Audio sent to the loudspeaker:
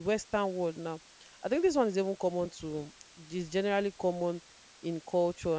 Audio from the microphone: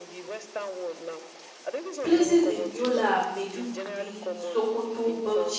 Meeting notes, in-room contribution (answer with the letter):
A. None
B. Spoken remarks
B